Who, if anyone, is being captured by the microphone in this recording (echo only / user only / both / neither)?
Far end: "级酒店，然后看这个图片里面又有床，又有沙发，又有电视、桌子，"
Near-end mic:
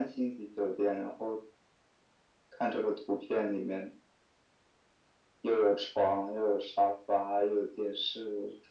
echo only